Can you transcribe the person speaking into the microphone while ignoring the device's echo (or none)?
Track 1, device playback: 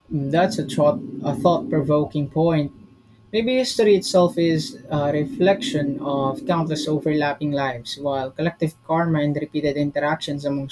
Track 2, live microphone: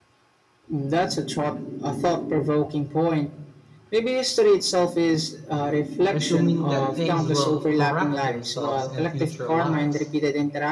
assuming that things will correct themselves in future lives.